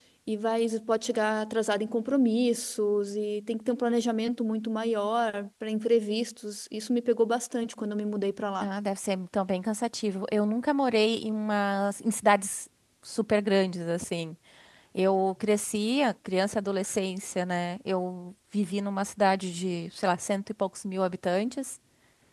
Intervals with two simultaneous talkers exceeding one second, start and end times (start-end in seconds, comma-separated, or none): none